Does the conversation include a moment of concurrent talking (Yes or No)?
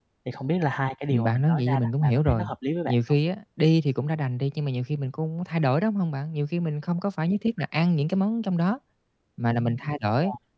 Yes